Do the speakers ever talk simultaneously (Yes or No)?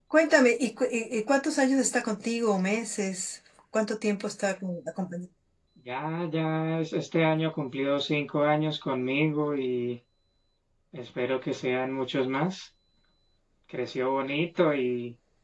No